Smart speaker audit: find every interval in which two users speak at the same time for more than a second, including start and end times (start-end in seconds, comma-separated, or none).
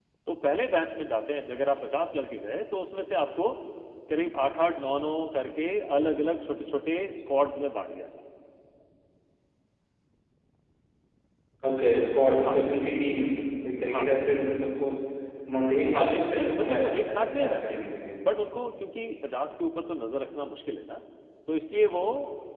15.9-17.8